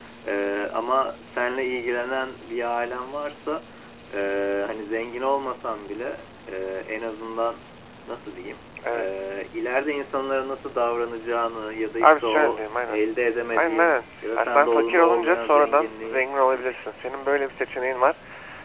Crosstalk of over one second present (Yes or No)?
Yes